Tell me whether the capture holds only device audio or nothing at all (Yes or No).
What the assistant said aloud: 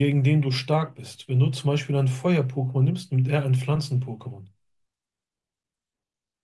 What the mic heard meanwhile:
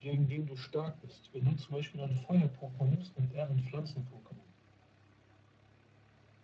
Yes